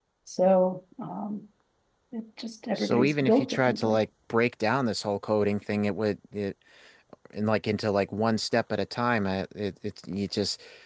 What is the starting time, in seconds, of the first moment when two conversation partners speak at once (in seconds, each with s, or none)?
2.8 s